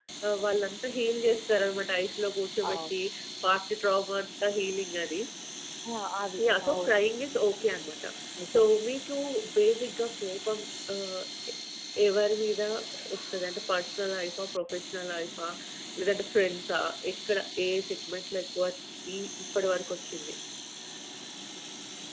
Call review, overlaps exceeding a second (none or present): none